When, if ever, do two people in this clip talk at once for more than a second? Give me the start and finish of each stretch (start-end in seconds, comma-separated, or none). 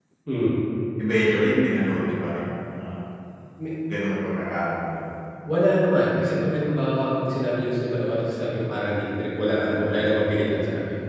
none